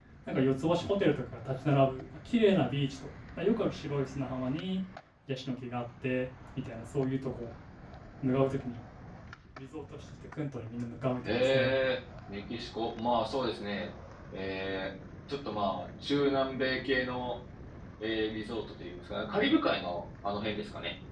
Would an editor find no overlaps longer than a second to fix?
Yes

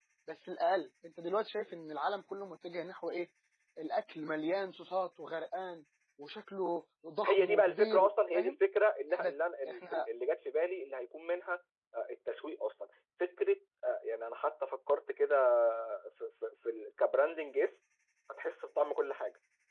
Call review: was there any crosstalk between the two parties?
Yes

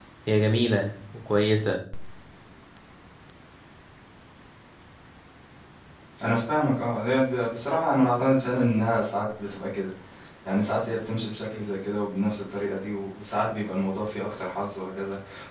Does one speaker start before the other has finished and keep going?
No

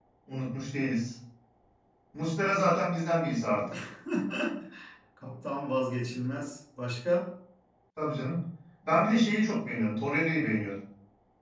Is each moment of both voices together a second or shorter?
Yes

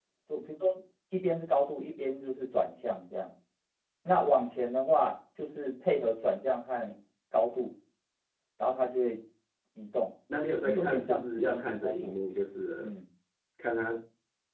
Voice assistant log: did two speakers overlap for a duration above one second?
Yes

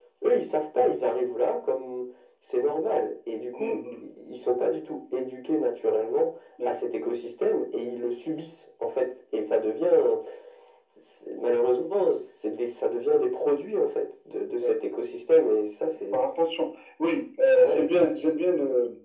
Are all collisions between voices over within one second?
Yes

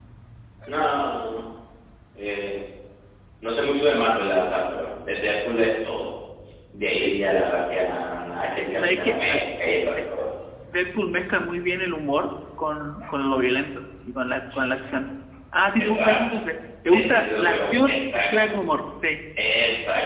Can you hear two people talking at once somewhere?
Yes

